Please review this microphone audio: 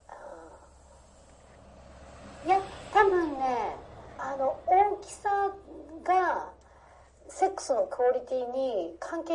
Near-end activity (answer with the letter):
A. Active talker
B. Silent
B